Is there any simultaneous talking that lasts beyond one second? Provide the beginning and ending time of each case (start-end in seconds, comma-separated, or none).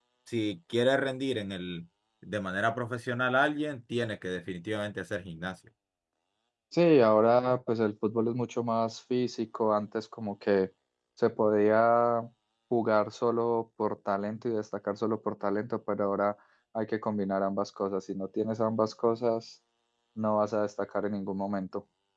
none